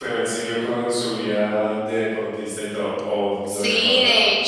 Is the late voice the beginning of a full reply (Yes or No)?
Yes